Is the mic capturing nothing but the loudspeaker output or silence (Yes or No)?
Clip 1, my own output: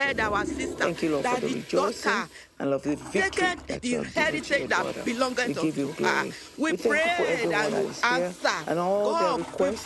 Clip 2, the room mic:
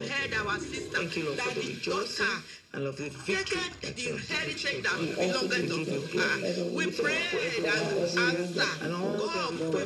No